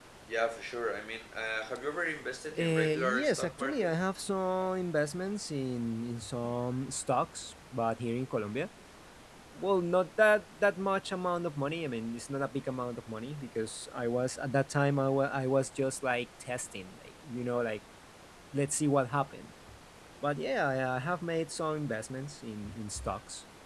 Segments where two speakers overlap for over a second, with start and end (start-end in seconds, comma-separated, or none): 2.6-4.0